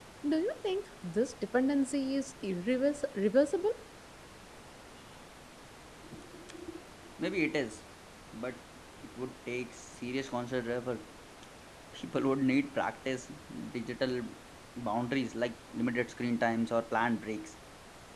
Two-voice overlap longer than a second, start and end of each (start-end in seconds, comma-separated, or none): none